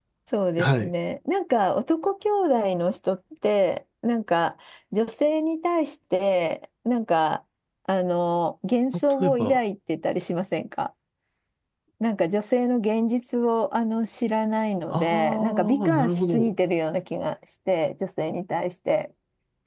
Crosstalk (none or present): present